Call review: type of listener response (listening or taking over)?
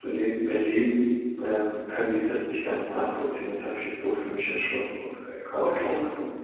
taking over